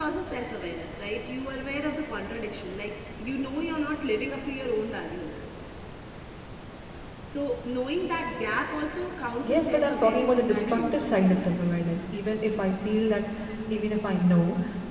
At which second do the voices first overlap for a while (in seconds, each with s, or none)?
9.4 s